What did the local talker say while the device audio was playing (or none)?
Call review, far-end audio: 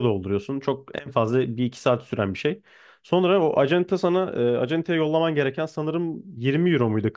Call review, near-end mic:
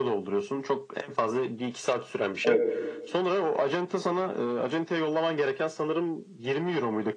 evet, evet.